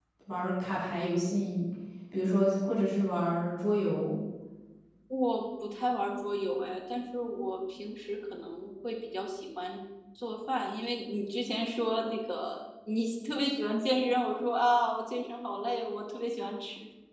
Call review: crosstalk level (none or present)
none